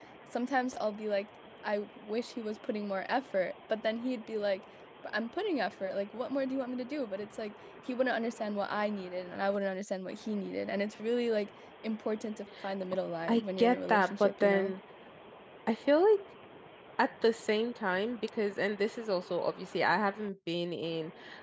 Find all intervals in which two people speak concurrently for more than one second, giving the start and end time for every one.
13.3-14.7

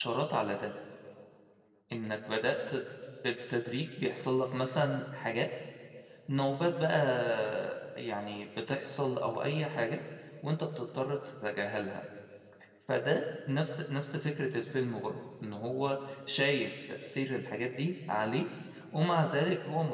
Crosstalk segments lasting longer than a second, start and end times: none

